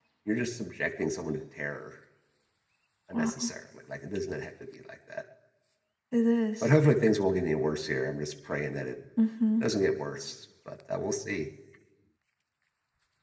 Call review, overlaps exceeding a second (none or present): none